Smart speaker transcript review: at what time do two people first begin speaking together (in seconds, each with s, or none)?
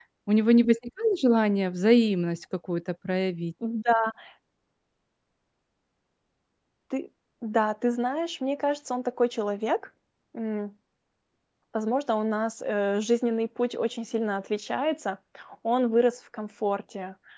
none